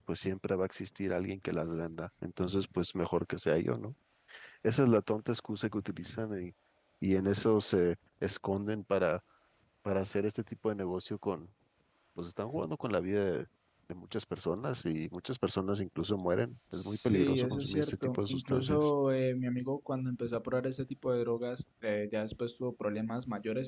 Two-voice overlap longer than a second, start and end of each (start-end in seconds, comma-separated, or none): 16.7-18.9